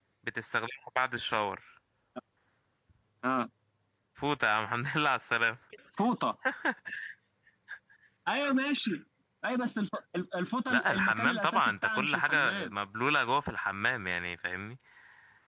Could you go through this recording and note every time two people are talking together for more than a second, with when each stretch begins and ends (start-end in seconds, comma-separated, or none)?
10.7-12.7